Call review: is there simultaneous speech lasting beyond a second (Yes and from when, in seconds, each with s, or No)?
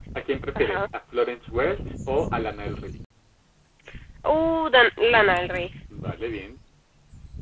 No